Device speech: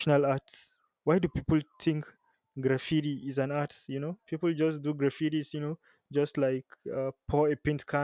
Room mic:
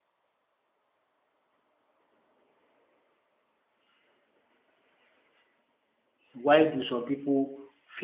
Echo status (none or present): none